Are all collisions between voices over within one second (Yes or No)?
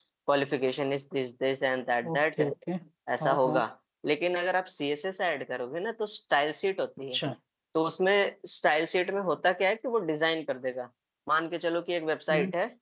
Yes